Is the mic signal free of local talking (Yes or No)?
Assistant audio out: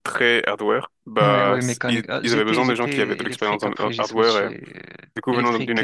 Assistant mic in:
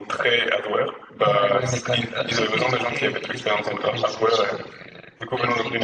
Yes